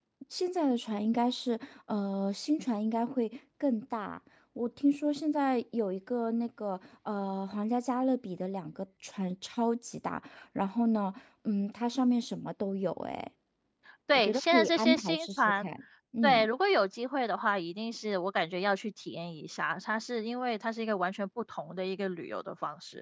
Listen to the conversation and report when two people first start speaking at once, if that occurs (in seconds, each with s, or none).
14.1 s